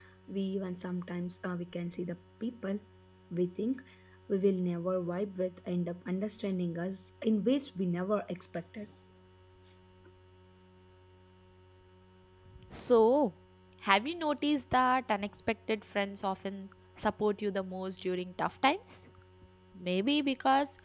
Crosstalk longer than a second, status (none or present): none